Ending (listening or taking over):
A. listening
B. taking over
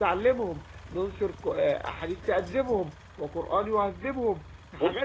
B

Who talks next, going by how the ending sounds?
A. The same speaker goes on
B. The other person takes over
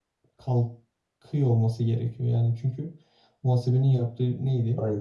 A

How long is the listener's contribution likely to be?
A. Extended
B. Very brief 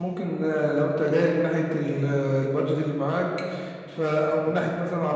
B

